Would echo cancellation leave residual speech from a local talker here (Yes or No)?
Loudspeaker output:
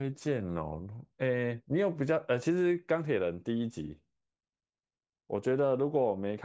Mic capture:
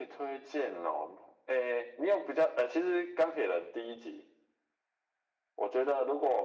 No